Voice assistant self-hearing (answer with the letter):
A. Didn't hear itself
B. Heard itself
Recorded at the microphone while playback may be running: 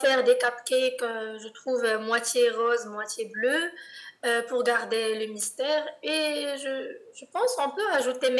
B